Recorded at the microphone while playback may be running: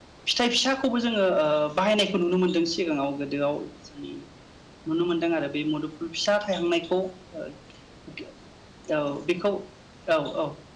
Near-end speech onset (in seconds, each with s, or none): none